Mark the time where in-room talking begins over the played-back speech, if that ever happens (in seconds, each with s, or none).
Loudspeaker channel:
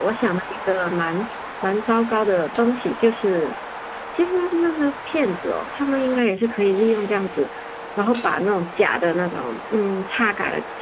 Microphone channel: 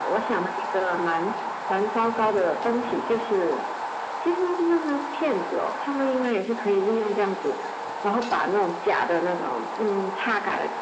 none